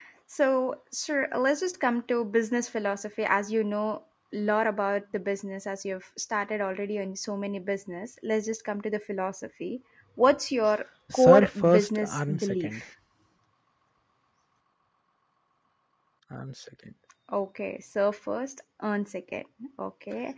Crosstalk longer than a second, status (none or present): present